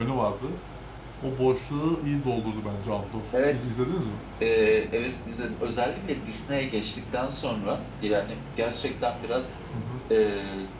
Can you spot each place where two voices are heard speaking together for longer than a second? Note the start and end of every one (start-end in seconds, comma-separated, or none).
none